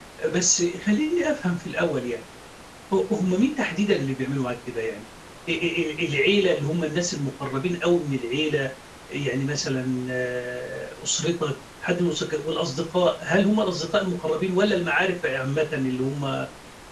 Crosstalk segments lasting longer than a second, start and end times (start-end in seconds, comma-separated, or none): none